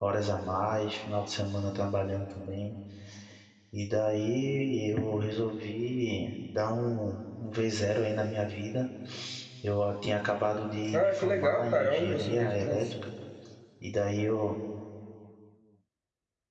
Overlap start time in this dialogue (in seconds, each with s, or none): 10.9 s